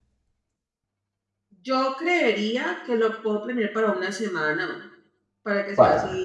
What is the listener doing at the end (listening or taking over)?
listening